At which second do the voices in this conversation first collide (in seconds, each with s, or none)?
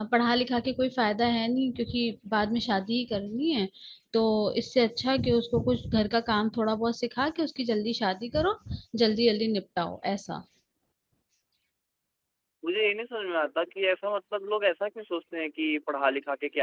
none